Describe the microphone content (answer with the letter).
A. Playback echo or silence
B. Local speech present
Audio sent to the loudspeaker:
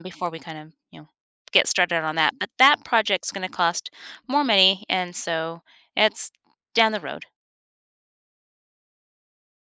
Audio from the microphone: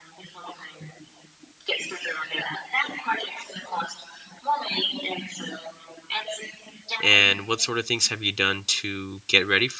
B